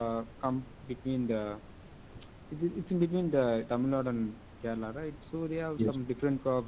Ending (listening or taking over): listening